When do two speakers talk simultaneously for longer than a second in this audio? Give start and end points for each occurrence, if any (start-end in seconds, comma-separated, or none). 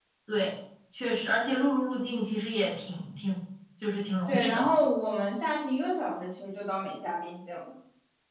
none